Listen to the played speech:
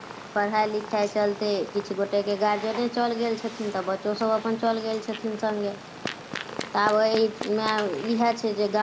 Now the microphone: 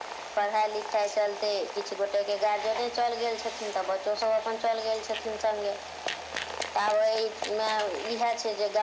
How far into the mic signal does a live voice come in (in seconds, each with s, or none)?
none